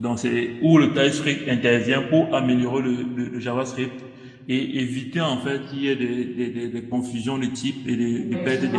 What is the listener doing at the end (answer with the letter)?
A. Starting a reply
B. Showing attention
A